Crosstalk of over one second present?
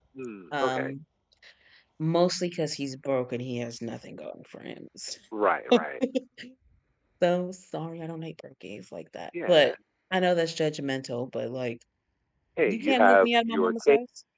Yes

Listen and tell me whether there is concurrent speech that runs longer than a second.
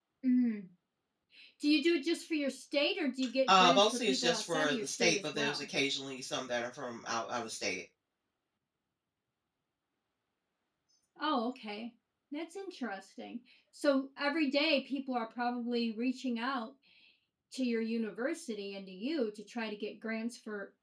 Yes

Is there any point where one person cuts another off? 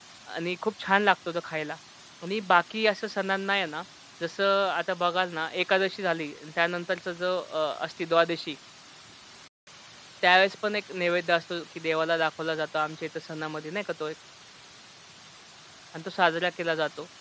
No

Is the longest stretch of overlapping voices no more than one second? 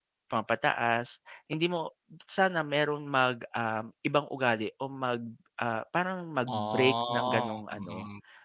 No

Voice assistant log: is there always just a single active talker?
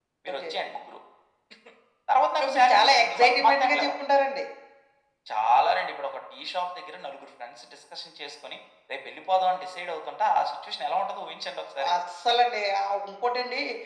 No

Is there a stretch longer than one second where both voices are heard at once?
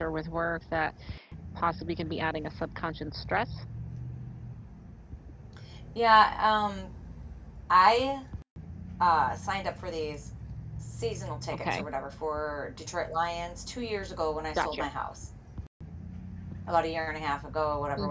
No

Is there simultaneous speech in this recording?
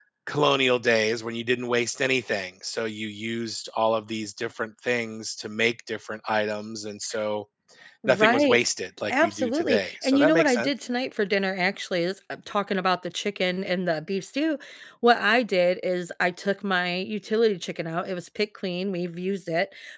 Yes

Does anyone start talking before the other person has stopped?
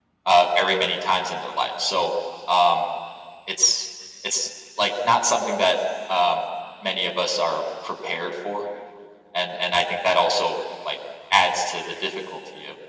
No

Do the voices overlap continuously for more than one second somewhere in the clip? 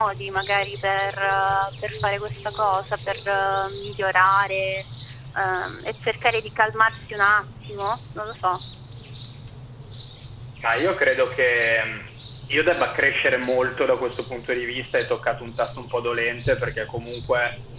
No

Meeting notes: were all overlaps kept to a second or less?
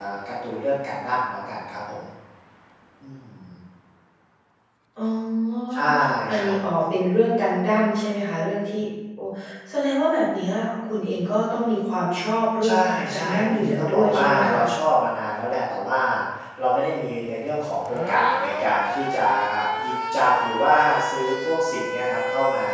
No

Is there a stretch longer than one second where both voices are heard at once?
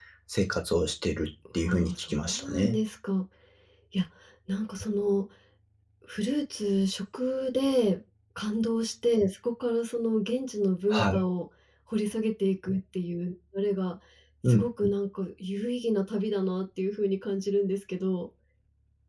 Yes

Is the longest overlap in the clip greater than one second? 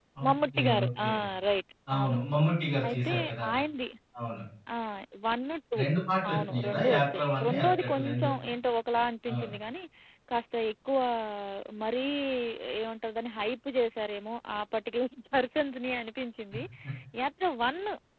Yes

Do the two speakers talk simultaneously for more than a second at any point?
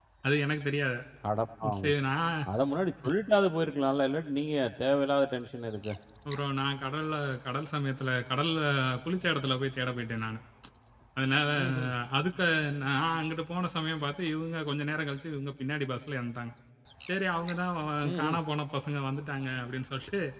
No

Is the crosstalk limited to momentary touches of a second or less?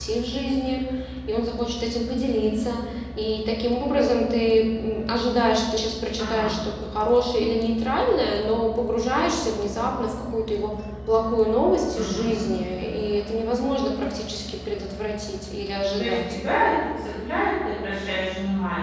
Yes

